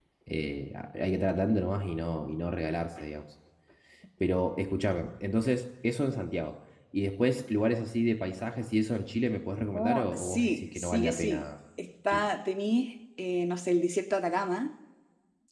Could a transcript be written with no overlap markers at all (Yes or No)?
No